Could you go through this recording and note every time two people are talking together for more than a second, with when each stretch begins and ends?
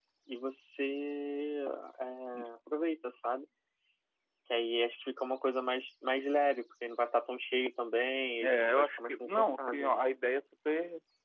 8.4-10.0

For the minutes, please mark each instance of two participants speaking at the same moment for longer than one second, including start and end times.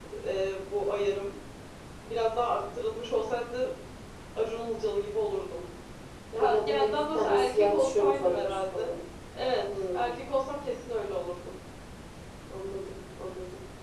6.4-9.0

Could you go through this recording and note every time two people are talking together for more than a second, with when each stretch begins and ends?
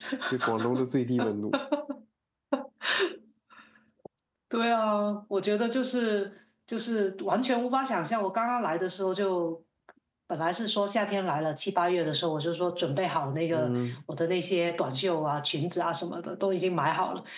none

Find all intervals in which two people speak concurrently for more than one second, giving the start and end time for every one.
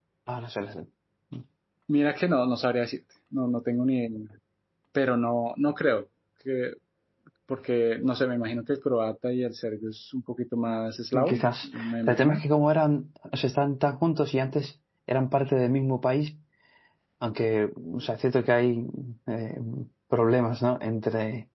11.1-12.4

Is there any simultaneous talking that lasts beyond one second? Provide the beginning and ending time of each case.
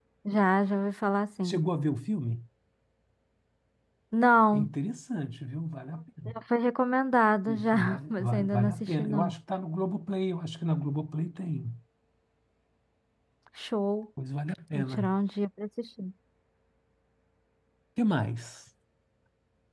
7.6-9.3

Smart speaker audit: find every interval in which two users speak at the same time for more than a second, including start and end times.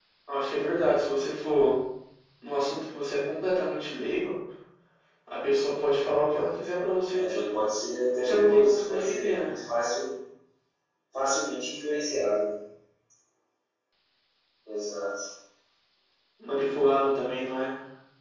8.2-9.5

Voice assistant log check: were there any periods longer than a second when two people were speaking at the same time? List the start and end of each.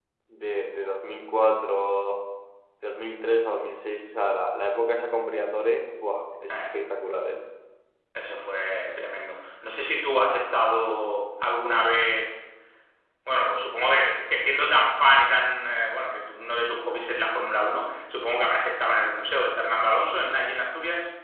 none

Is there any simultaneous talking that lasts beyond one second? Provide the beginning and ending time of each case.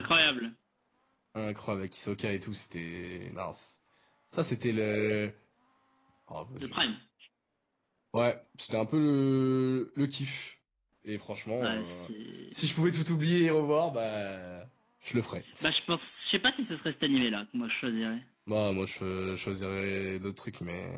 none

